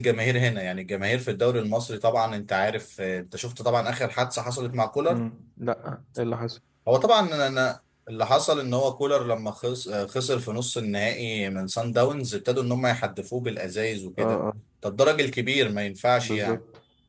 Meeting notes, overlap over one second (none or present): none